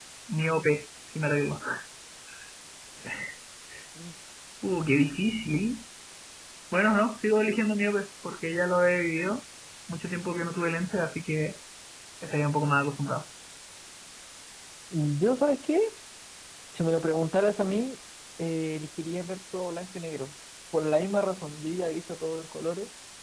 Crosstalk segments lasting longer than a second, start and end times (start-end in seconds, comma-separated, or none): none